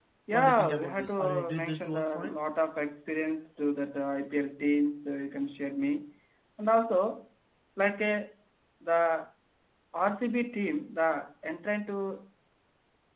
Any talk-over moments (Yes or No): Yes